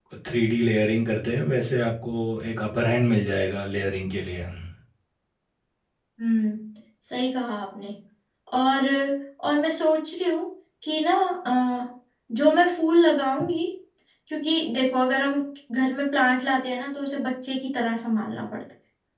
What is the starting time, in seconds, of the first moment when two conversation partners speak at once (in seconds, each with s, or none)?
none